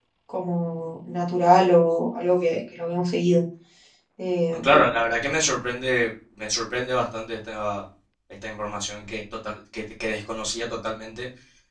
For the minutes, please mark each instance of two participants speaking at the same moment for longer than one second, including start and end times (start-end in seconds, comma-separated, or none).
none